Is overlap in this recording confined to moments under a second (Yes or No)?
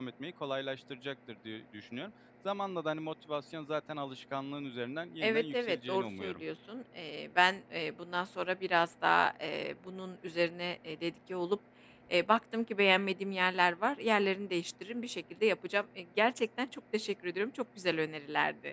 No